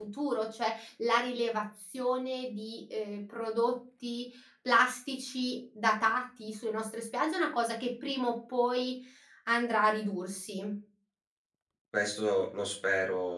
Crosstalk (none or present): none